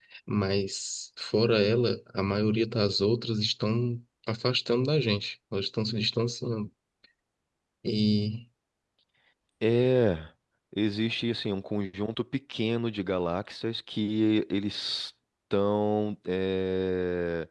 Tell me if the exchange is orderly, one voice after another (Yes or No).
Yes